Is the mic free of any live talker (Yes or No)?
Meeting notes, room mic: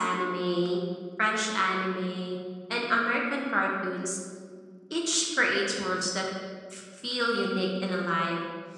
Yes